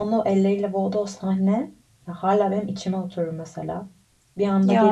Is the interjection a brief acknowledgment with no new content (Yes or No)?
Yes